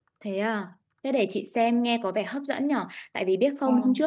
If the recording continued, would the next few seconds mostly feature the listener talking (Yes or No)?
No